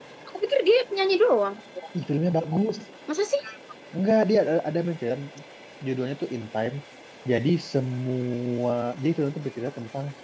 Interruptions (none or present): none